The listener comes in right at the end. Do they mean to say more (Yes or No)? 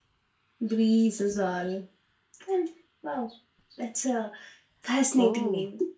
Yes